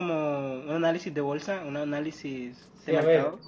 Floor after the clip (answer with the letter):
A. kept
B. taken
B